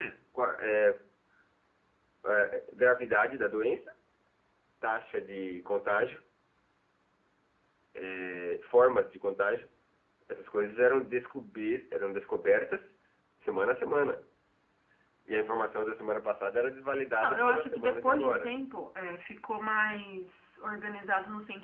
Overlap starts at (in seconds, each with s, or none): 17.2 s